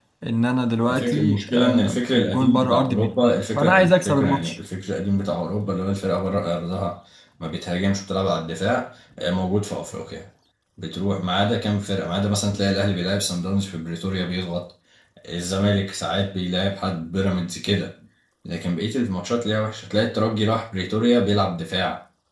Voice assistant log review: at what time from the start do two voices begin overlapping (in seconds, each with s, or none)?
0.9 s